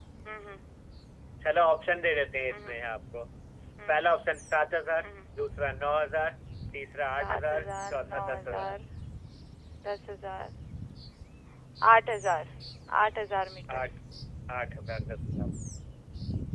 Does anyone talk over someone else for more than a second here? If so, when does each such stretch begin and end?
7.2-8.7

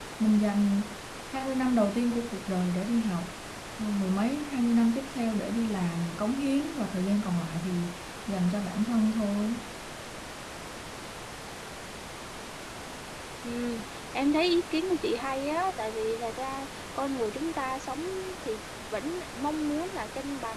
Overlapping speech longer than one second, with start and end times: none

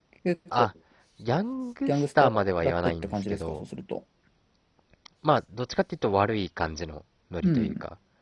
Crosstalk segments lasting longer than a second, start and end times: 1.9-3.6

